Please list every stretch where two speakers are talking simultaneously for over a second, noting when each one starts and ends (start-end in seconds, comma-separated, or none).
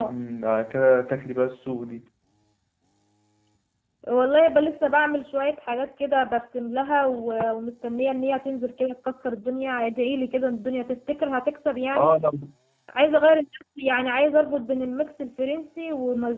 none